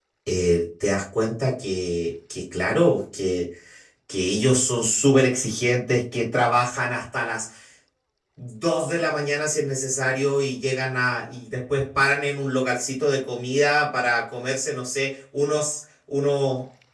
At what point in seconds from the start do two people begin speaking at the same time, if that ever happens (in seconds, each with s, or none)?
none